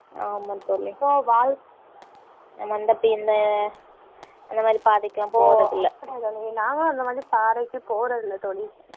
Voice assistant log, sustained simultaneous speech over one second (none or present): none